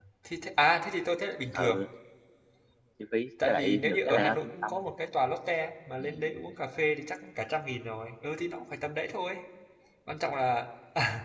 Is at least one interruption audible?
Yes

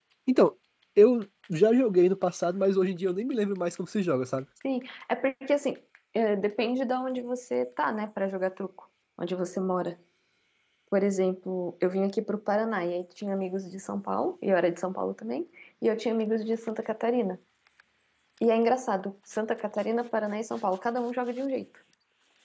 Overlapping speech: No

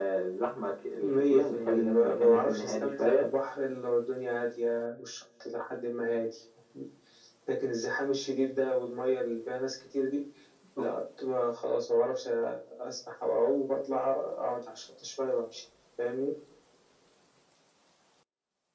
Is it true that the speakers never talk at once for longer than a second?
No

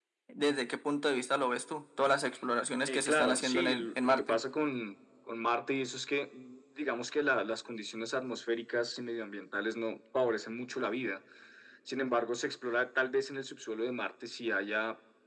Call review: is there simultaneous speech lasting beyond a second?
Yes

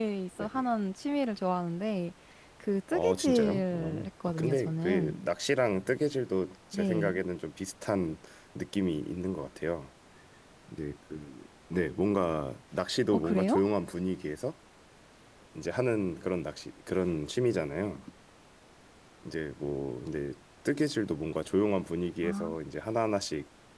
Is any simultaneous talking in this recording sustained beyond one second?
Yes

